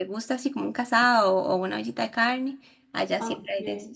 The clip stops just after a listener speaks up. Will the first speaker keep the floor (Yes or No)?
No